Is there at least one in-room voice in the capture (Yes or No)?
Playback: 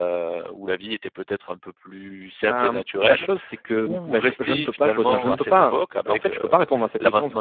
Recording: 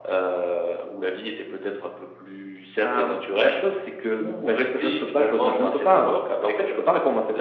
No